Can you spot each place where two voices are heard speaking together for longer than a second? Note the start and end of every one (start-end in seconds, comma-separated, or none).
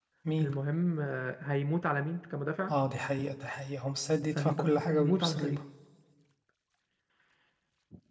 4.3-5.6